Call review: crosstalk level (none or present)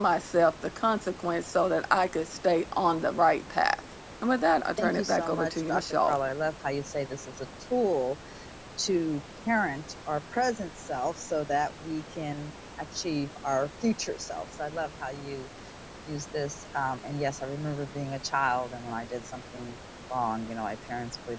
present